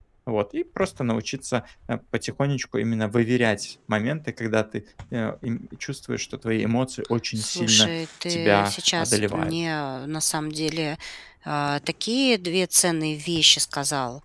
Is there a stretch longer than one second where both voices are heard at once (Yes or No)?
Yes